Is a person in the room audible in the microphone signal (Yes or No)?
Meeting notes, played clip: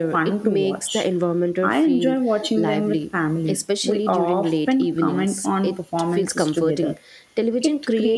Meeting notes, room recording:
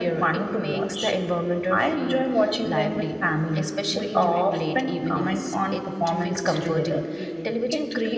Yes